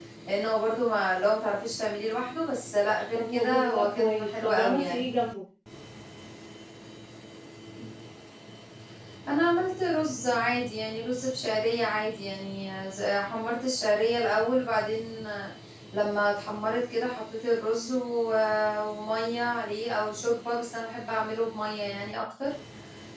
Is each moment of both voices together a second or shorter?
No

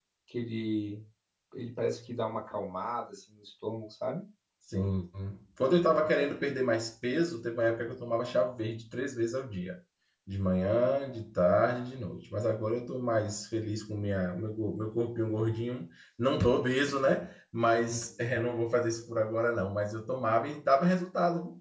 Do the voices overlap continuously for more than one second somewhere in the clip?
No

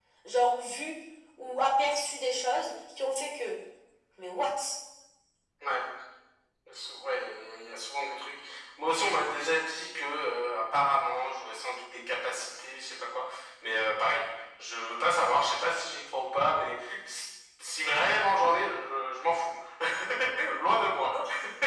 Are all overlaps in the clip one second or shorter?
Yes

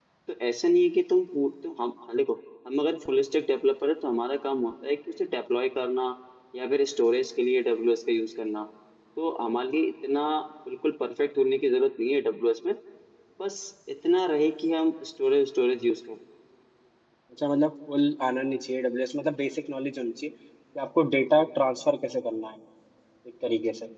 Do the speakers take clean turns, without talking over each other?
Yes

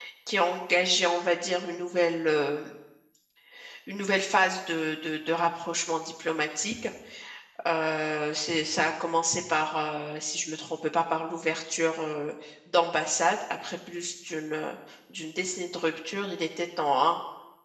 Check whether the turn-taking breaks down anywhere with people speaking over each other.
No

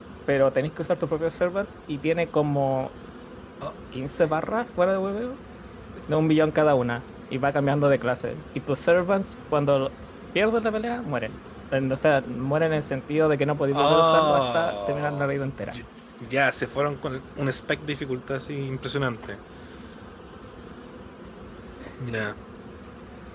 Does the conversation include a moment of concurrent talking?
Yes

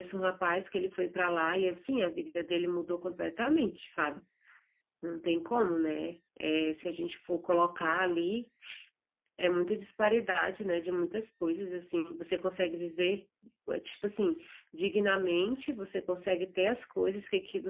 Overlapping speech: No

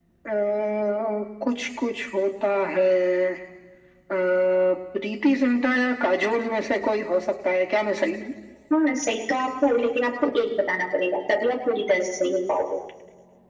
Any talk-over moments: No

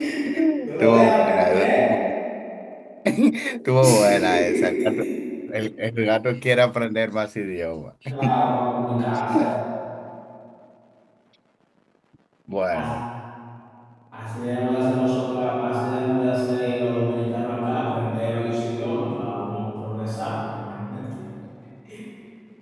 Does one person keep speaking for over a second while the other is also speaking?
Yes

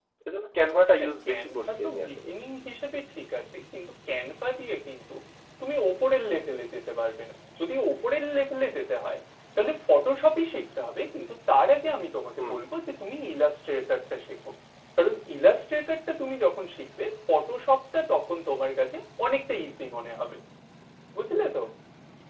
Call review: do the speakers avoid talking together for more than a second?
No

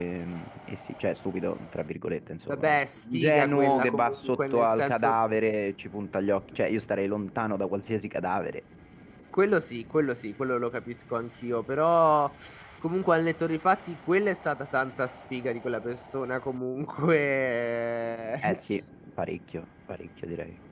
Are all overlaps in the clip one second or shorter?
No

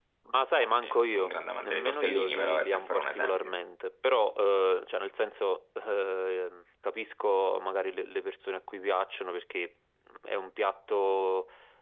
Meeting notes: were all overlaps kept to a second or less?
No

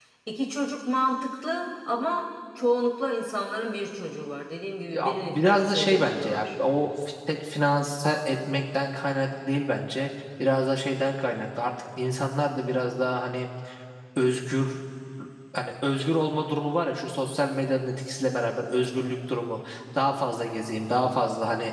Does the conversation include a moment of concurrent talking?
Yes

